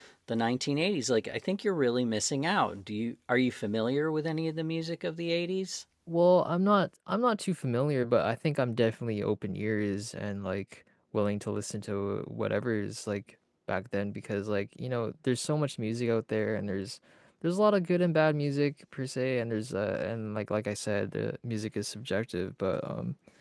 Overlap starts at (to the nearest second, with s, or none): none